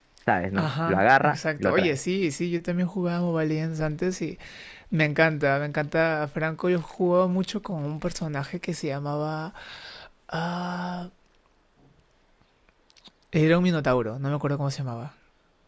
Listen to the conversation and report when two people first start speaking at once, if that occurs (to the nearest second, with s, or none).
1 s